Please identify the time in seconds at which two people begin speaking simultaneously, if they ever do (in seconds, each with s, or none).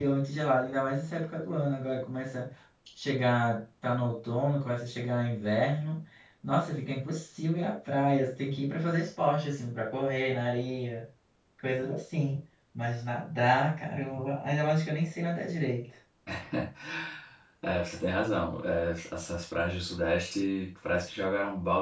none